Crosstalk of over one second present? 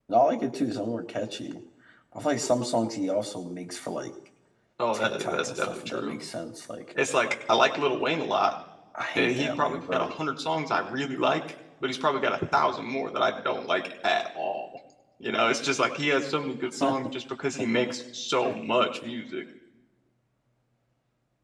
Yes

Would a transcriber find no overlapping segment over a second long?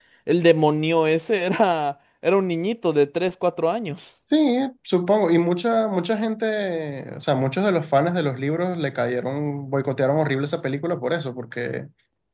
Yes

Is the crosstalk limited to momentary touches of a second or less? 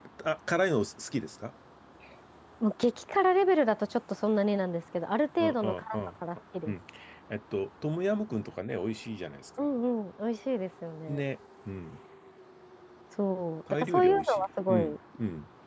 No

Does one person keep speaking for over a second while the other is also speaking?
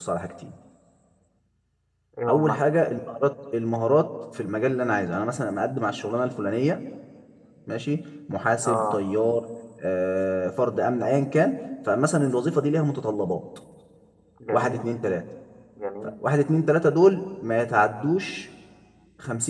No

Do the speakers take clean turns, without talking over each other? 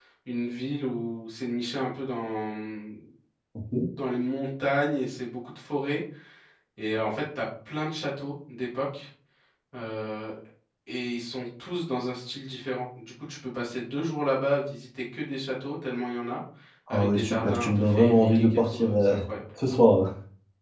No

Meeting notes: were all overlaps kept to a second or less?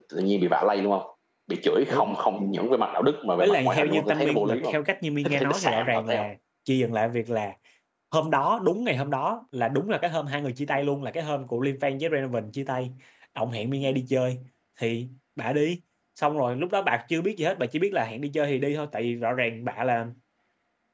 No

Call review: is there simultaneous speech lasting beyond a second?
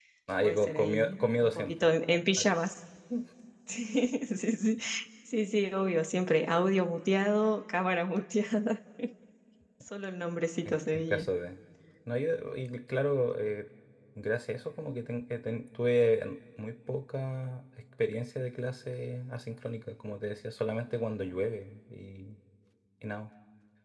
Yes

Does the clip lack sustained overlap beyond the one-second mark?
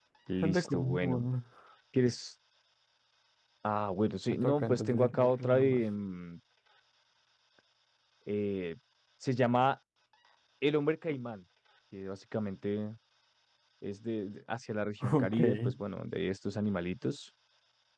No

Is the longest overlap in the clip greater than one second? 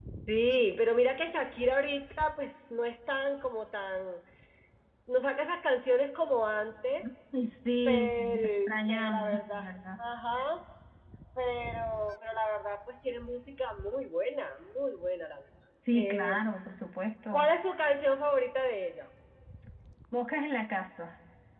Yes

